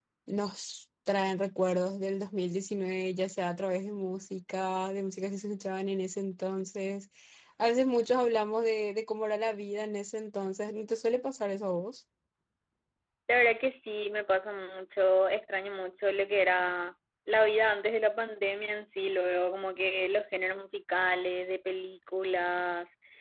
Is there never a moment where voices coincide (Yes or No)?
Yes